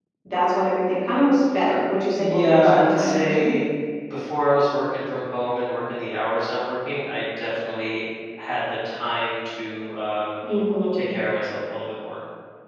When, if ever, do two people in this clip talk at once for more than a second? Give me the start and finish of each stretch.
2.2-3.6

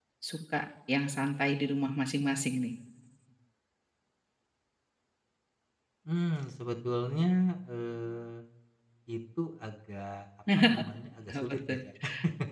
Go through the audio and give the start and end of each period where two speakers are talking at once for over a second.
none

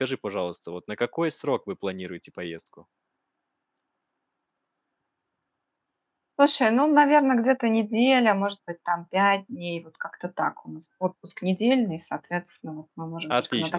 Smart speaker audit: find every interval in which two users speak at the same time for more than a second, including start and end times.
none

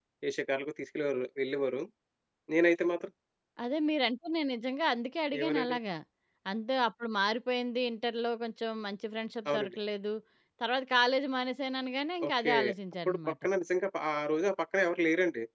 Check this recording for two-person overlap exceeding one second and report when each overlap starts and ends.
none

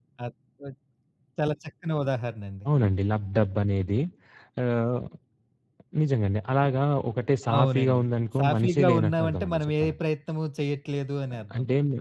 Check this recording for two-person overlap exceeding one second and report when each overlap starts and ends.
8.4-10.0

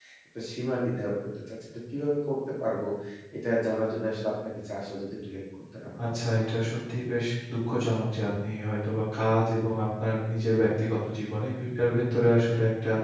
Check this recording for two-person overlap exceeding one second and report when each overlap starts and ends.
none

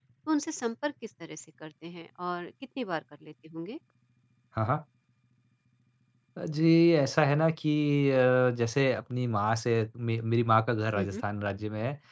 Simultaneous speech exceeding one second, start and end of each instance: none

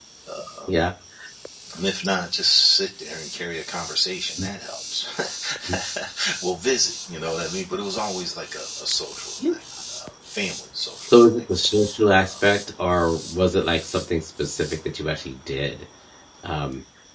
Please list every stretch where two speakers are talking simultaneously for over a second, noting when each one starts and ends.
none

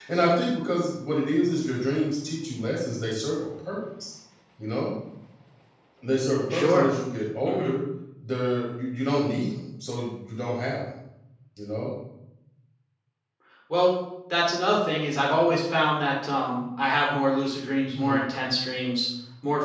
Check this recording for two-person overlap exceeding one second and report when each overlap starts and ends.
none

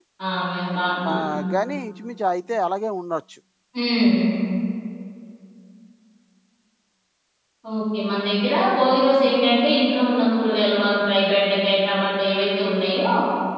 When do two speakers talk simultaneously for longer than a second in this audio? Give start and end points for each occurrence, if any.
none

